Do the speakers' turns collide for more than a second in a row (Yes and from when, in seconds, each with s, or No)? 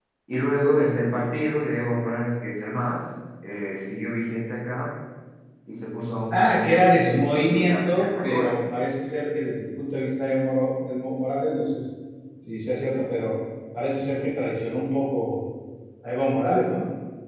Yes, from 6.3 s